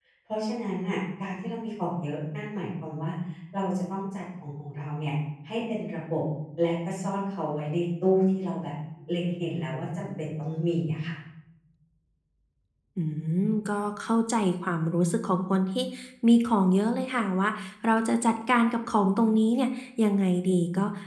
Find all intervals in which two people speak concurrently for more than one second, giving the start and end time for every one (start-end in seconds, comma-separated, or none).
none